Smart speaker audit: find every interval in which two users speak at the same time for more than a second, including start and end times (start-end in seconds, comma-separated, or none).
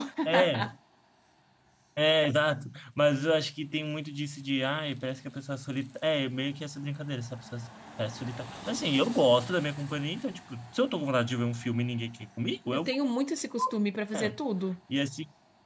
none